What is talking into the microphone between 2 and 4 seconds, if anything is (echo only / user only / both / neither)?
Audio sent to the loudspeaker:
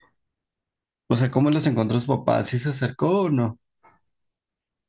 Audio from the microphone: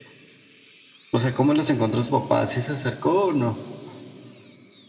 echo only